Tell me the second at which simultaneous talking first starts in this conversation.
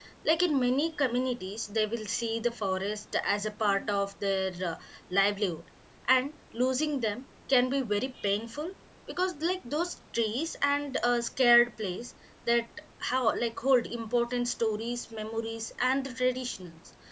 none

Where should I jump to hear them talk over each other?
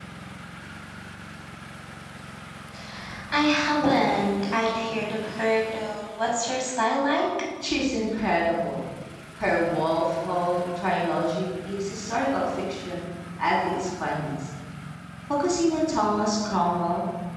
none

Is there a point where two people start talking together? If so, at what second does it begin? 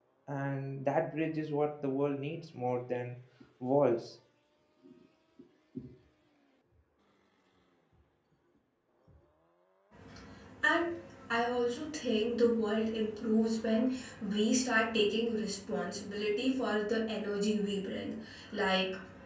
none

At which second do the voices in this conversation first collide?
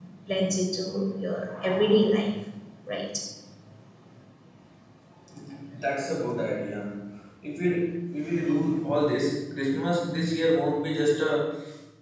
none

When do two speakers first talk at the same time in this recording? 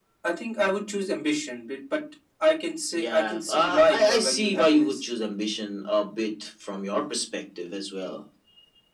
3 s

